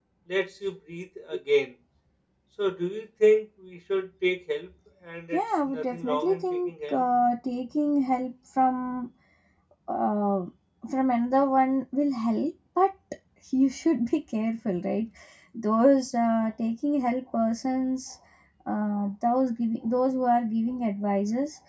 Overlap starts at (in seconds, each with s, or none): 5.3 s